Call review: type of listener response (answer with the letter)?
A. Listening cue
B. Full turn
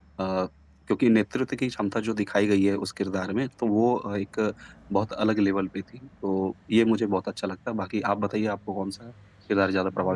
B